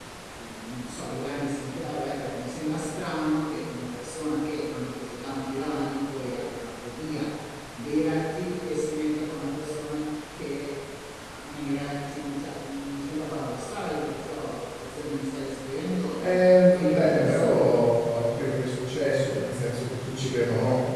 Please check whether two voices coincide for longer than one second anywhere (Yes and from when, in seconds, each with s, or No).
Yes, from 16.6 s